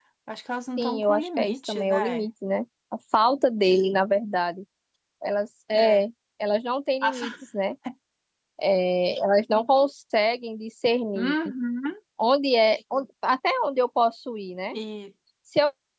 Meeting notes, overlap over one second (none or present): present